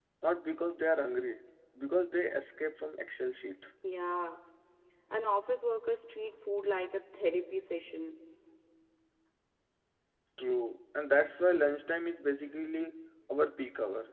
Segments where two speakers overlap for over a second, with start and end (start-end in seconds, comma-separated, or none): none